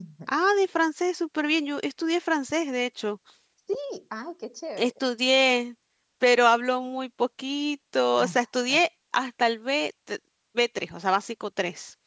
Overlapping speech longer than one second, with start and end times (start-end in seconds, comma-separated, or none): none